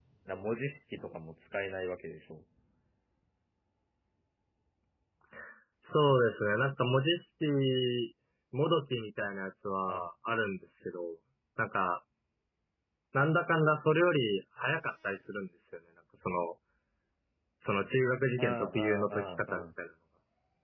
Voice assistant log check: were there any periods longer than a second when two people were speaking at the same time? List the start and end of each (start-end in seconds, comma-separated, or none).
18.4-19.6